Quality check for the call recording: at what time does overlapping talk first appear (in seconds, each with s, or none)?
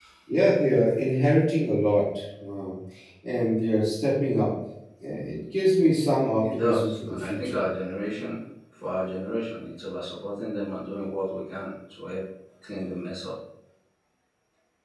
6.4 s